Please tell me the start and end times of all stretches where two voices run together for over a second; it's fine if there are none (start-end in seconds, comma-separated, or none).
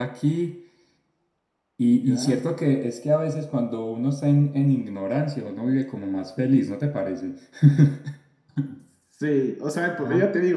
none